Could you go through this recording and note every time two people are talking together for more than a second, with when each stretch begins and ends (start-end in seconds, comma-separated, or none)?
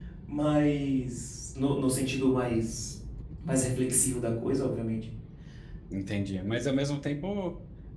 none